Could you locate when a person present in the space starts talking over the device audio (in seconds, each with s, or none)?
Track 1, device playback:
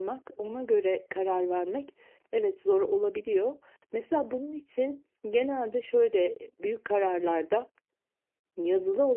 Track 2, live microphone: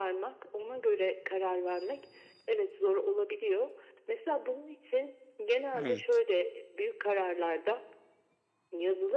5.7 s